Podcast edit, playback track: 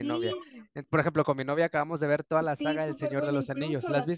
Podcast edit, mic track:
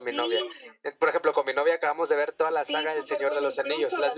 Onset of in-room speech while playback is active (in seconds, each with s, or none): none